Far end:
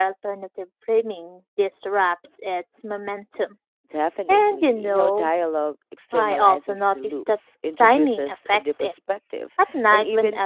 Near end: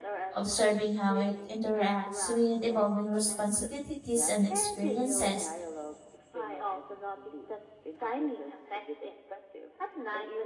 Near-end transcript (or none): Observing how it interacts with evolving responsibilities and experiences